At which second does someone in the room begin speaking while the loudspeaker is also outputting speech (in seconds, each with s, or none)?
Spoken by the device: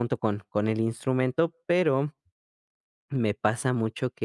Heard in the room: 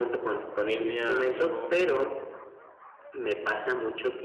0.5 s